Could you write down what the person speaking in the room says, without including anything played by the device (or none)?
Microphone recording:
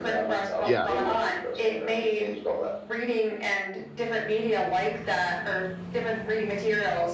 Yeah, yeah.